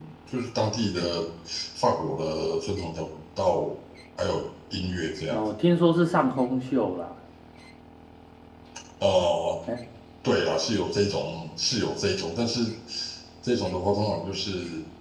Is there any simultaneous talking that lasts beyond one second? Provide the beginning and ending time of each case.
none

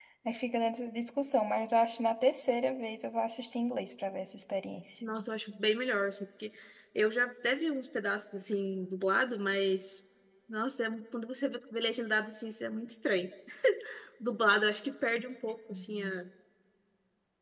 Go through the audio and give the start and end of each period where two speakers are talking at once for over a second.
none

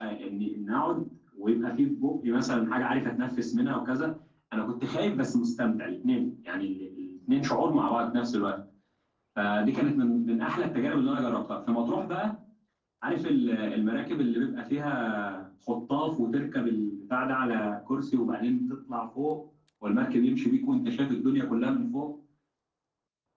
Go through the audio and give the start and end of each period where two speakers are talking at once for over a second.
none

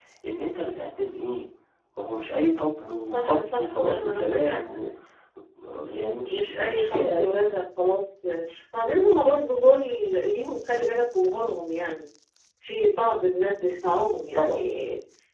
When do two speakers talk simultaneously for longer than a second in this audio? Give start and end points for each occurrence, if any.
2.8-4.6, 5.9-7.3

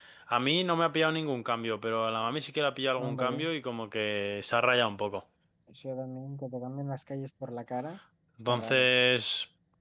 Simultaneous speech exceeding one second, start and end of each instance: none

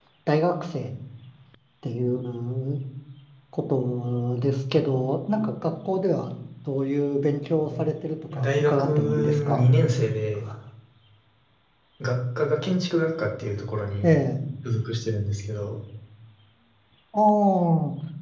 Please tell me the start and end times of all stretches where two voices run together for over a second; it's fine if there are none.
8.3-9.6

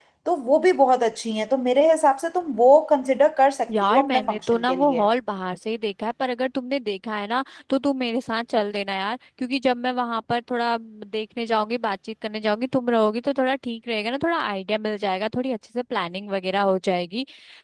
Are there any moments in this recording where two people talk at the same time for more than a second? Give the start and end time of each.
3.8-5.0

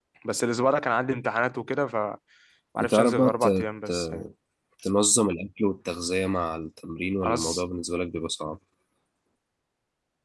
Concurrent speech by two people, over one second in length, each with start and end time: 2.8-4.3

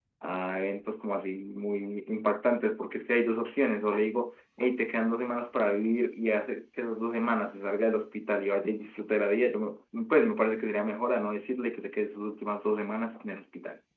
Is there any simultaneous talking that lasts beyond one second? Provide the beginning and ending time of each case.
none

